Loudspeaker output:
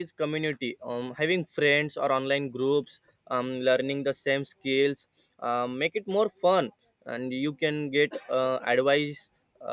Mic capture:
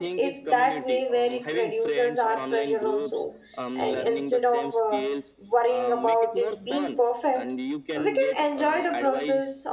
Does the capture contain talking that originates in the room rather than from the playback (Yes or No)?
Yes